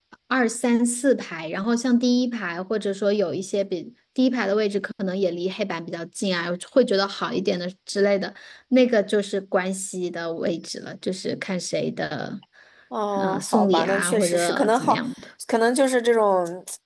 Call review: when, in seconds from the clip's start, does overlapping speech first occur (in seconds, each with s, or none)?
13.2 s